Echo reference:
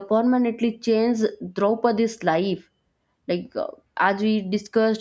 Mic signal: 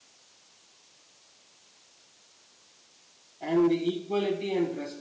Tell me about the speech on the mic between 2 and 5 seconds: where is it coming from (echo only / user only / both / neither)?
user only